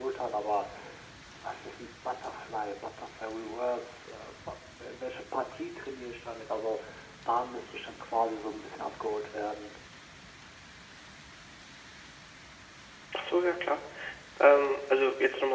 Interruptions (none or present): none